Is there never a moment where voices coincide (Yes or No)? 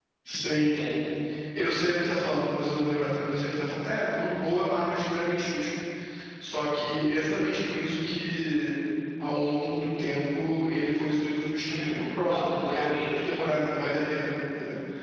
No